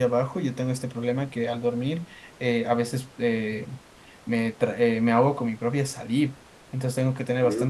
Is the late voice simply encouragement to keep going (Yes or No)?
Yes